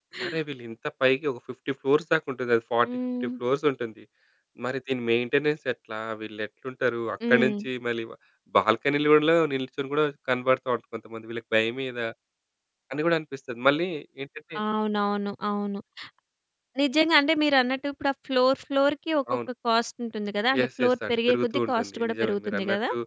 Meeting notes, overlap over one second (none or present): present